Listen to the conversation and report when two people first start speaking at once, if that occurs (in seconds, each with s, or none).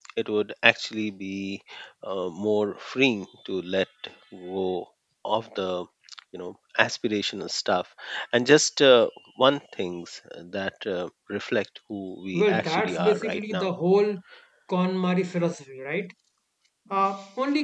12.3 s